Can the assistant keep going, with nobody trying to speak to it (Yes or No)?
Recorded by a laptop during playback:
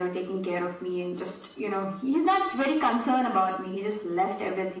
Yes